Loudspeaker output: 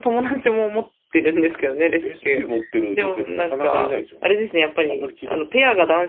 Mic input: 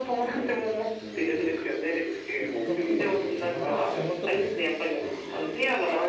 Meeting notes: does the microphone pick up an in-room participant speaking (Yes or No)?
Yes